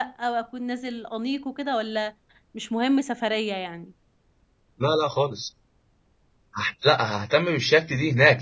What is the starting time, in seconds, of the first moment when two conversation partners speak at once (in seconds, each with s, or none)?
none